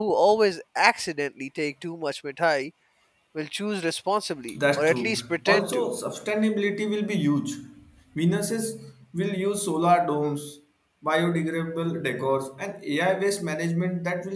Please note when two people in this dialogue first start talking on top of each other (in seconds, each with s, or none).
4.5 s